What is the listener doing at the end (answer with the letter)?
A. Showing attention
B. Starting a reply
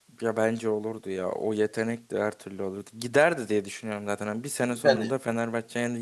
A